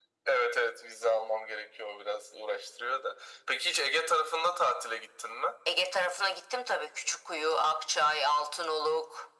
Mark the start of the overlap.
none

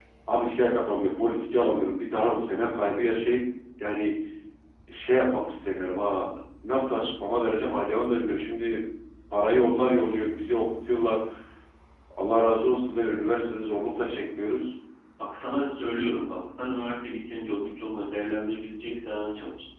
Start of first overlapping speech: none

